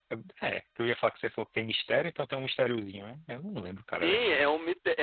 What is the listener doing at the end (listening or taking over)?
taking over